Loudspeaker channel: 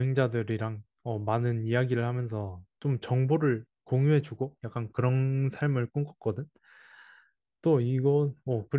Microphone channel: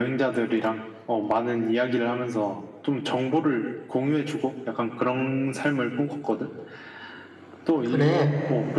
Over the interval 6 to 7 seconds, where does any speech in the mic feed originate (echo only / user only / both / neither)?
echo only